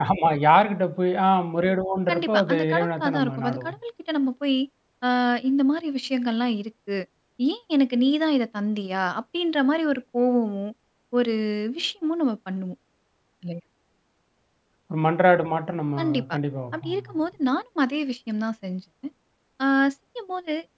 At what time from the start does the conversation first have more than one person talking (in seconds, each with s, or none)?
2.1 s